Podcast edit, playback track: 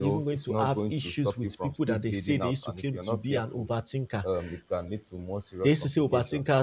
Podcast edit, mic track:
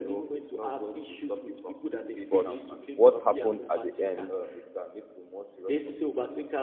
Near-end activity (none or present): present